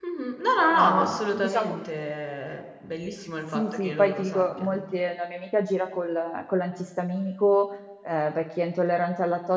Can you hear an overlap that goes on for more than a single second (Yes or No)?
Yes